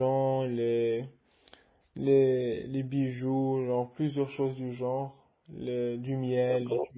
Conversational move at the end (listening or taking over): taking over